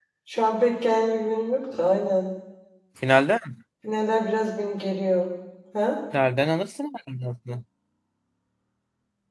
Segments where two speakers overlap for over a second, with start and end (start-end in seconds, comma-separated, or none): none